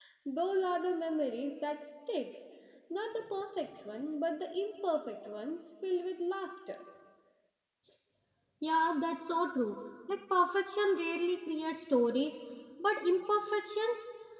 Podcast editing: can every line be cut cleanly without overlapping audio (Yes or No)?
Yes